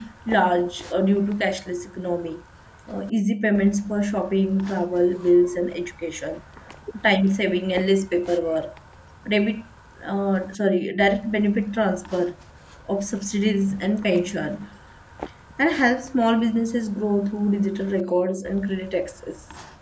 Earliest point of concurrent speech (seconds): none

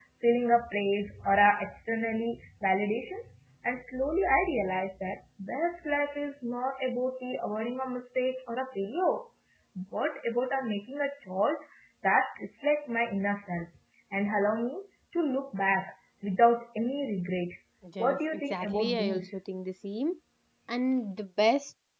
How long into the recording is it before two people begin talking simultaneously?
18 s

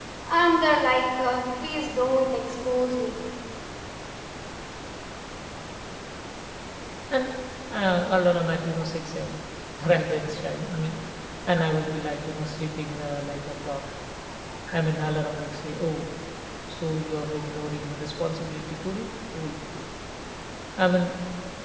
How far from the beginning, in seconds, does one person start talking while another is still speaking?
none

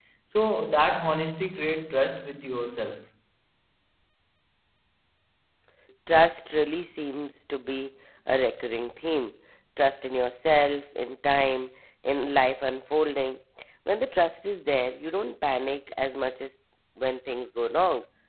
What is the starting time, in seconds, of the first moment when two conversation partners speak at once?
none

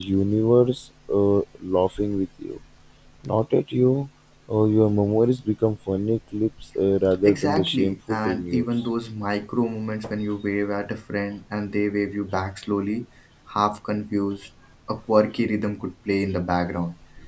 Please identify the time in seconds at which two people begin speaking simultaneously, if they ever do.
7 s

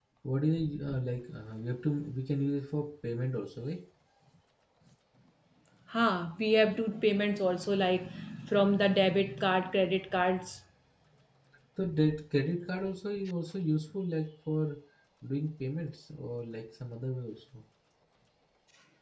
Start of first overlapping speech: none

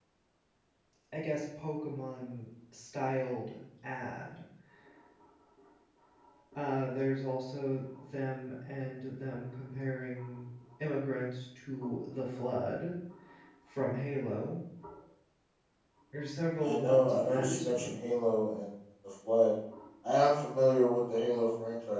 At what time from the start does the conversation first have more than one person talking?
17 s

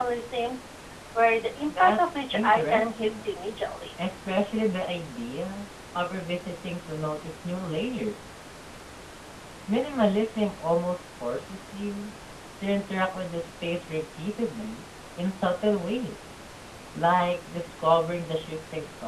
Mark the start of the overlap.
2 s

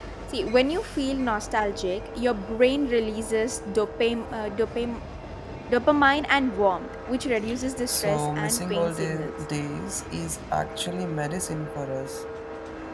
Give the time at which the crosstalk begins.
8 s

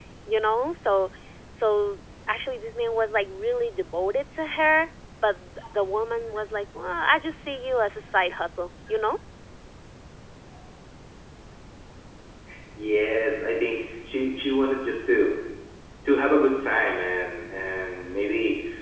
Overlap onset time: none

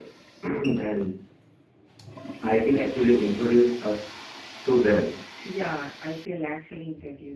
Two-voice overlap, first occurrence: none

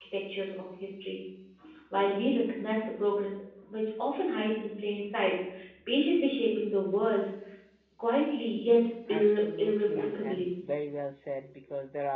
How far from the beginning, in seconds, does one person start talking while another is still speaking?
9 s

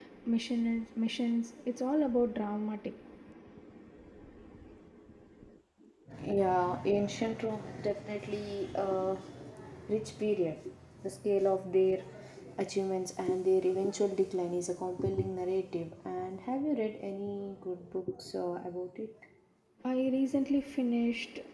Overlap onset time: none

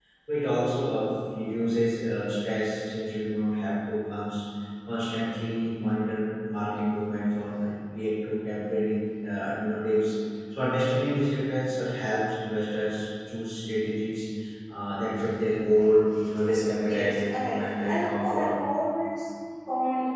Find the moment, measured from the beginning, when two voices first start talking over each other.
17 s

